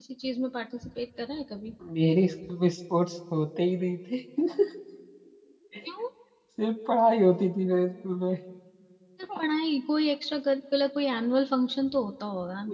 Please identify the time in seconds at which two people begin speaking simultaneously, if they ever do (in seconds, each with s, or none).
none